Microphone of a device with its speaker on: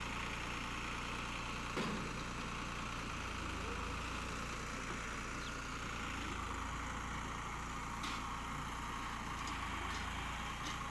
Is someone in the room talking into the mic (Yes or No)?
No